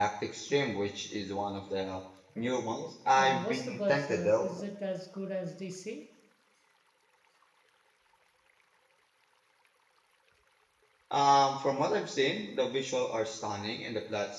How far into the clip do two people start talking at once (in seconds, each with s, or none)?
3.2 s